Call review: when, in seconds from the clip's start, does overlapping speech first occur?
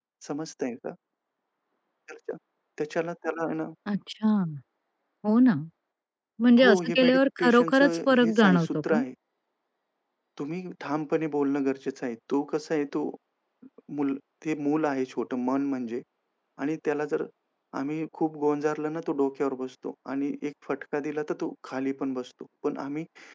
7 s

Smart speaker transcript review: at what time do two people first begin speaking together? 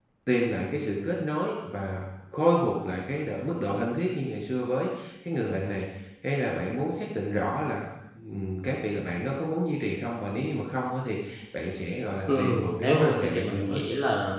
12 s

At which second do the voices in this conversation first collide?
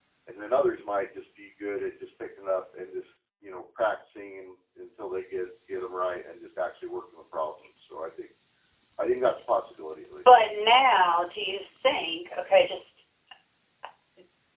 none

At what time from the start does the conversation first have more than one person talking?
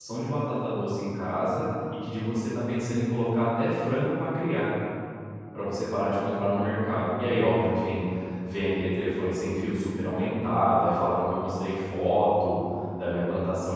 none

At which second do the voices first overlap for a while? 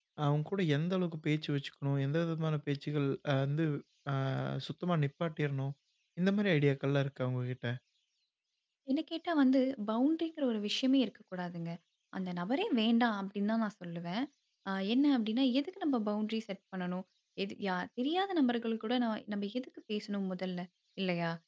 none

